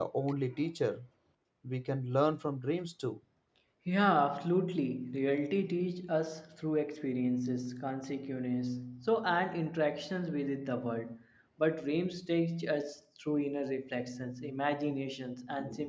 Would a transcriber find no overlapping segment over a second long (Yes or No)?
Yes